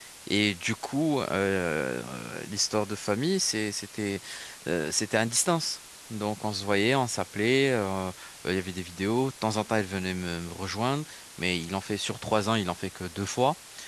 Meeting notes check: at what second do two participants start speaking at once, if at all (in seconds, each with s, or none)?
none